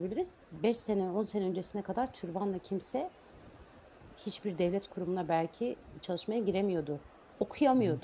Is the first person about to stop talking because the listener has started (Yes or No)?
No